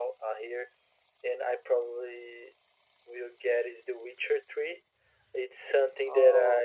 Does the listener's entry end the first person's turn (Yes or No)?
No